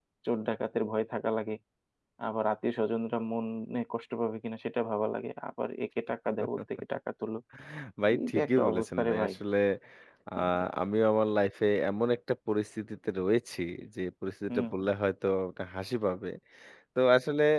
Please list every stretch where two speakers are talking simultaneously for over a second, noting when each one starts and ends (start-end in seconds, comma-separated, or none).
8.1-9.3